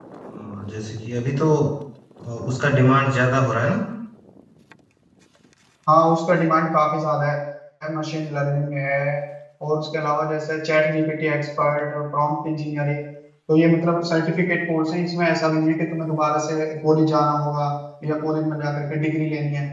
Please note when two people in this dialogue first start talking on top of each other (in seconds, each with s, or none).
none